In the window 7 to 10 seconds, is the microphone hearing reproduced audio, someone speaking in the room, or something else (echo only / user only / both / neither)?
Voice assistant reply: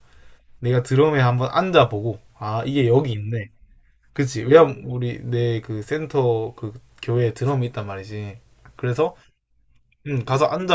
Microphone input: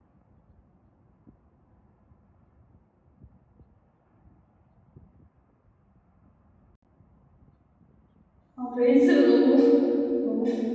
user only